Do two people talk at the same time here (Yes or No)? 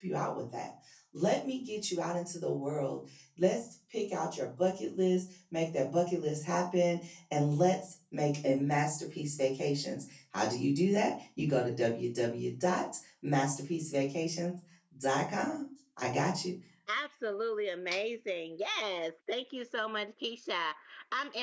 No